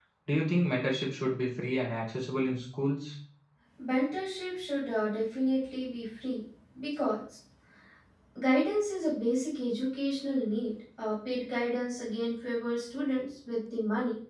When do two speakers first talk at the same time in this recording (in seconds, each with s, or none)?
none